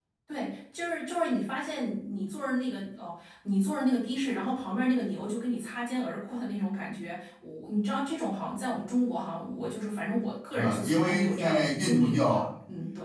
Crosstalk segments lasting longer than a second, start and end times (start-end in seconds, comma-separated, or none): 10.5-12.5